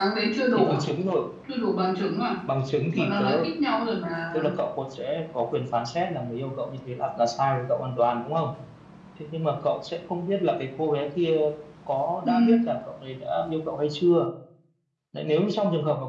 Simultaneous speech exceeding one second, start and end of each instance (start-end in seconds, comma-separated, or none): none